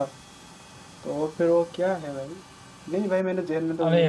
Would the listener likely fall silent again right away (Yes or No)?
Yes